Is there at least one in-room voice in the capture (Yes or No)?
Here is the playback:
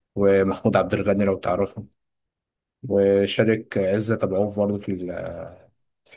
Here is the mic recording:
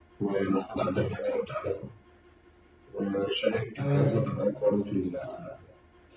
Yes